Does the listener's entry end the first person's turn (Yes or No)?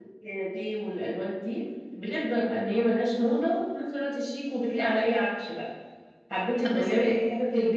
No